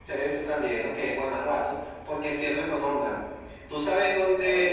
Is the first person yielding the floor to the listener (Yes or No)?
No